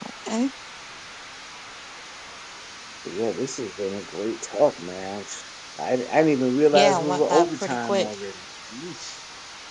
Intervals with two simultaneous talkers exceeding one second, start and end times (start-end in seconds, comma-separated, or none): 6.7-8.1